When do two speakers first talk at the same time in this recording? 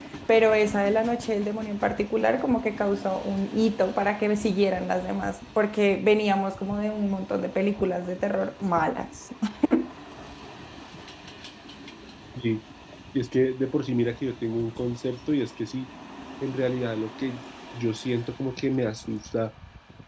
none

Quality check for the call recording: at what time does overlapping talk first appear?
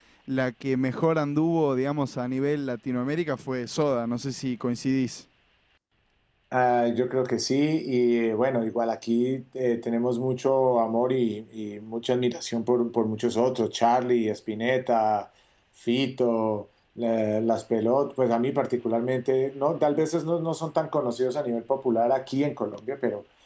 none

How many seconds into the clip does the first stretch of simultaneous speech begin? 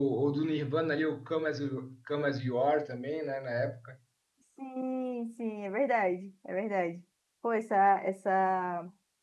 none

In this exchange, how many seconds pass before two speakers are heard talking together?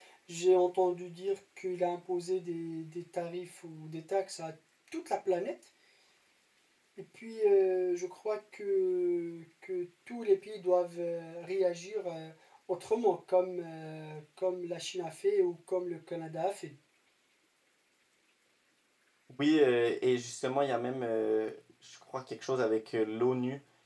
none

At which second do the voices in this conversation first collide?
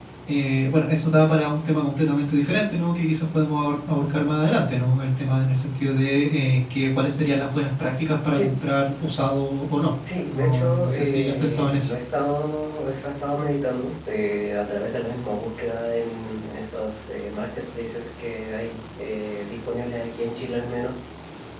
10.3 s

